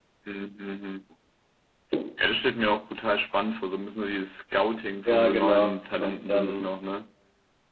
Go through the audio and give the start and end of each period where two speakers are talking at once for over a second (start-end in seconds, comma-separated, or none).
5.0-6.7